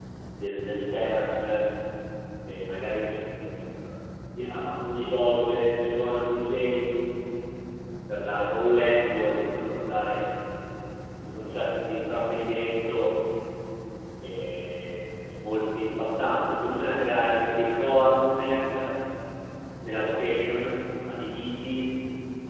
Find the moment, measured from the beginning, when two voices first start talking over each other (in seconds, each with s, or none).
4.4 s